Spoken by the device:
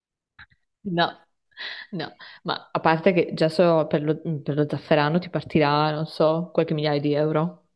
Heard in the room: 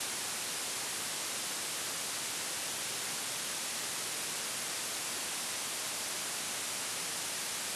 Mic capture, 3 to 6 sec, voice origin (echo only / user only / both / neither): neither